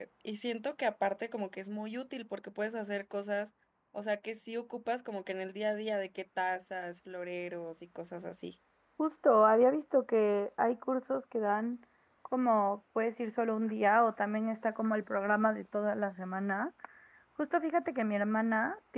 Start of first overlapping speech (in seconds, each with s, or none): none